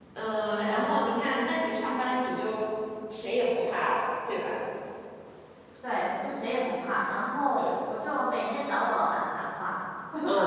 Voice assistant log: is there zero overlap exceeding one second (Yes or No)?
Yes